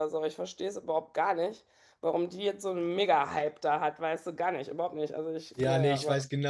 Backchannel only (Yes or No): No